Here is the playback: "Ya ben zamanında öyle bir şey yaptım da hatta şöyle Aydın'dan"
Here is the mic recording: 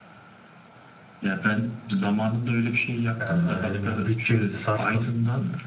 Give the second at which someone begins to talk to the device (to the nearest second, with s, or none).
3 s